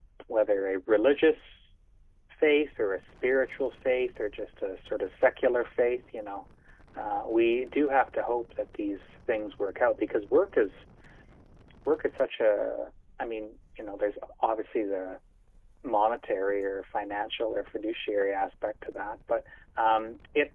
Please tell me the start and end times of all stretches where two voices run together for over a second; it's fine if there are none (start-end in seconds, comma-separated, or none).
none